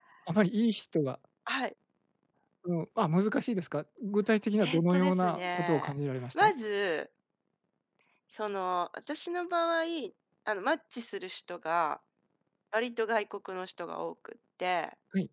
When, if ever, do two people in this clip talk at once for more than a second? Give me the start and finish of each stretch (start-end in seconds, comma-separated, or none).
4.6-5.9